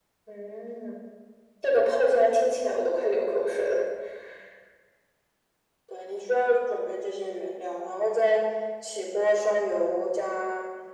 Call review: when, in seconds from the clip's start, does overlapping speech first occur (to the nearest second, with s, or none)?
none